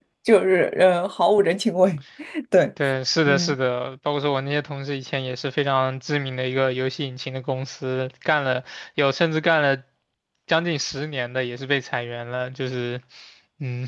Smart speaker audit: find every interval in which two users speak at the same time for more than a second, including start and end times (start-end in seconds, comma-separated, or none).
none